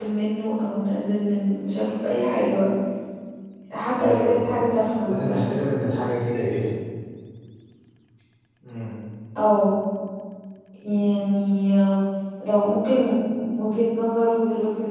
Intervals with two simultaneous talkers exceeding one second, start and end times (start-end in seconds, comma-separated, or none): 4.0-5.5